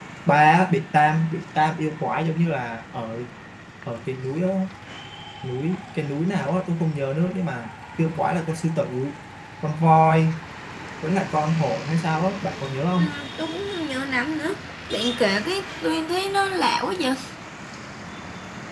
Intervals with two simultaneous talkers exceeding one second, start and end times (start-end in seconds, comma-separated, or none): none